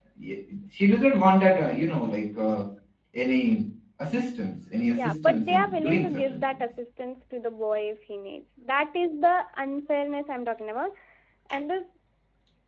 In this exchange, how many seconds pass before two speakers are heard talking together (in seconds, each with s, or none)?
4.8 s